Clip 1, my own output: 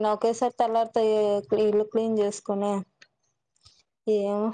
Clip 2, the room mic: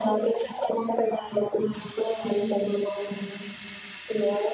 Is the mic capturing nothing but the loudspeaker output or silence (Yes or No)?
Yes